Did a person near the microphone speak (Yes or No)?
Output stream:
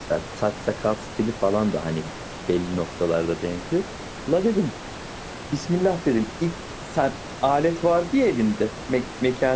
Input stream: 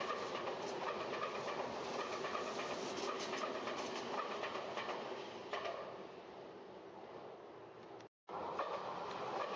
No